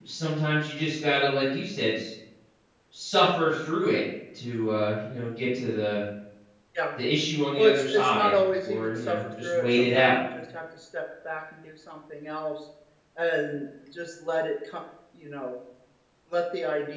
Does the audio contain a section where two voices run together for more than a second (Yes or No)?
Yes